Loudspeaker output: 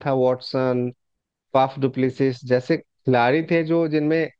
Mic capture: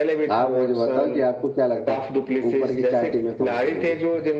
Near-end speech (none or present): present